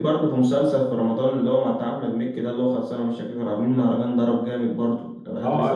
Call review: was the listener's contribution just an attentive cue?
No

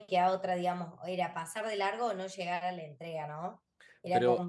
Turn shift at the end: No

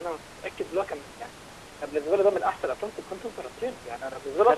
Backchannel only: Yes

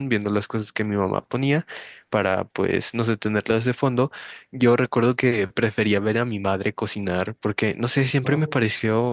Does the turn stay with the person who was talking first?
Yes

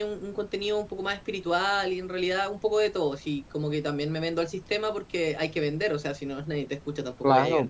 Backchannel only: No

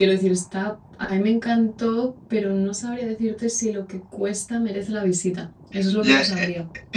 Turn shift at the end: Yes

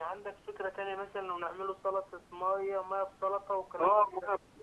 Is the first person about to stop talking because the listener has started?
Yes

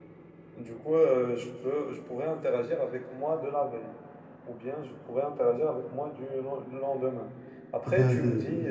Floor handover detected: Yes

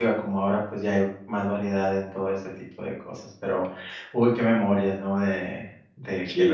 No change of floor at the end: No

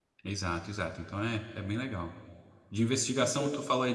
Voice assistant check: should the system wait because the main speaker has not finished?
Yes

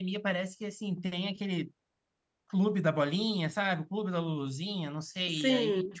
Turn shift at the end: No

